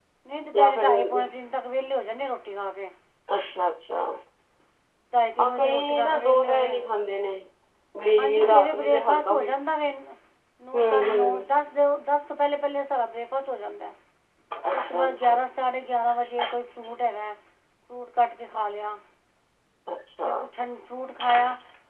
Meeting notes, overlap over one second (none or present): present